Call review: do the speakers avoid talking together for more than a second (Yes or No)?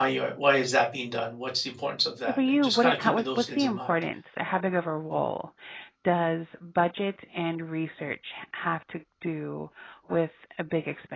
No